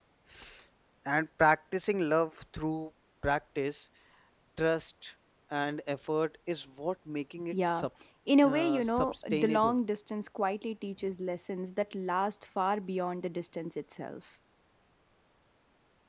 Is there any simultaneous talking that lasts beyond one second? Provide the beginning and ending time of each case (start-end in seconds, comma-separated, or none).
8.4-9.7